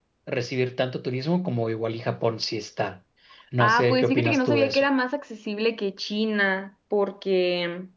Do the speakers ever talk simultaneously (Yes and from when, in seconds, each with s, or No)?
Yes, from 3.6 s